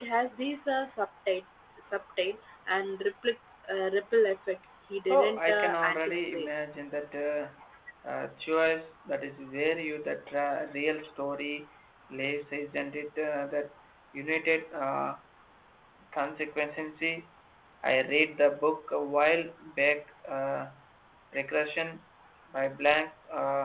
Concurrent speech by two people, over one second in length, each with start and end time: 5.1-6.5

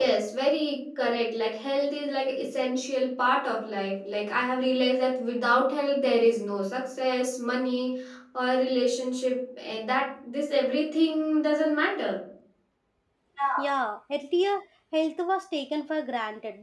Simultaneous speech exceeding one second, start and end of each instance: none

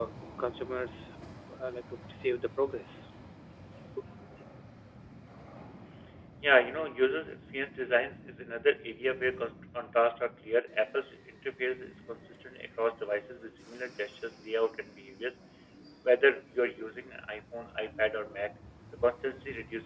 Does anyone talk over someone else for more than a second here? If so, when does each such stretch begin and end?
none

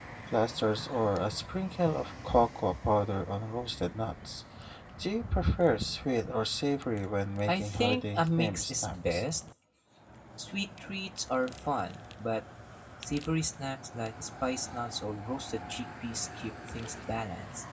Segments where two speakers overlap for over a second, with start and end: 7.4-9.2

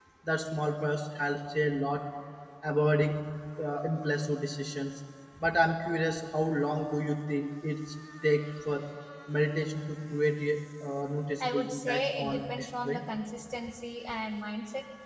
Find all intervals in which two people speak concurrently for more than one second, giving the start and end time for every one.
11.4-13.0

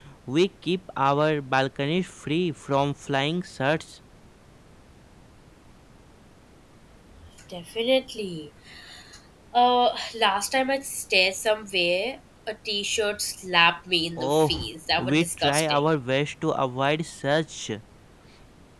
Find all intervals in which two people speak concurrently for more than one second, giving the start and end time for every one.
14.2-15.8

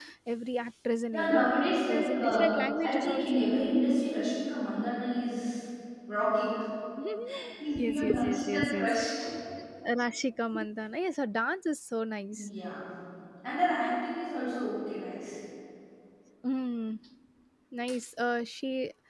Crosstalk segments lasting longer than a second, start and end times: 1.1-2.5, 7.8-9.0

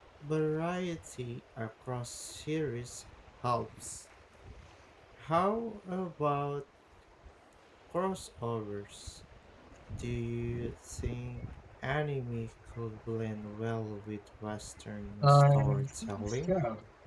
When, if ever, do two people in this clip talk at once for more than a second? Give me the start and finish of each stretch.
15.2-16.5

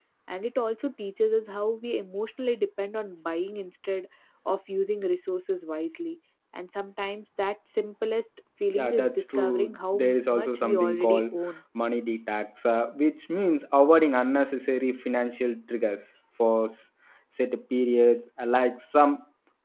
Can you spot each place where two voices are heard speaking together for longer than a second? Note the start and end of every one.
8.8-11.2

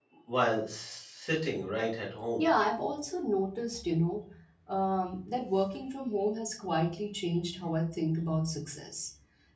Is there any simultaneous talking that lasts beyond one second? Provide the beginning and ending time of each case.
none

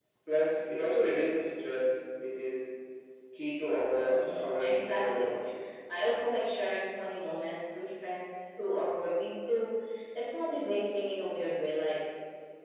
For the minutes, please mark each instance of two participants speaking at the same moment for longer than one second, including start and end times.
4.0-5.3

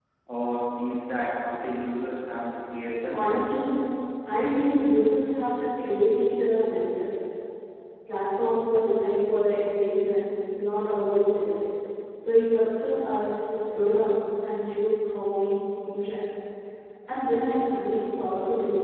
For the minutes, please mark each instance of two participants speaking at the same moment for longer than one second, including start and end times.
none

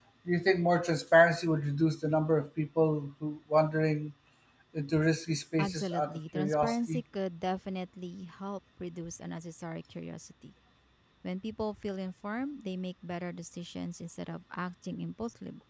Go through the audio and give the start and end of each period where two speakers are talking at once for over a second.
5.6-7.0

